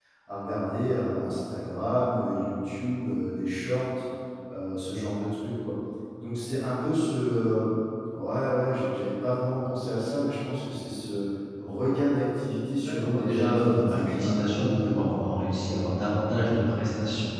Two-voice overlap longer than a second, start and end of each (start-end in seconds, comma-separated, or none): 12.8-15.6